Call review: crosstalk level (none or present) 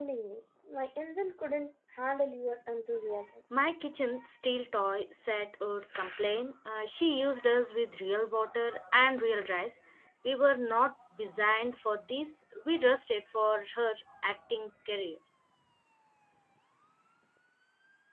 none